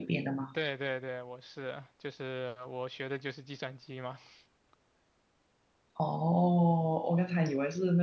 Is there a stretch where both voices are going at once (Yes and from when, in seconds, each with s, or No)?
No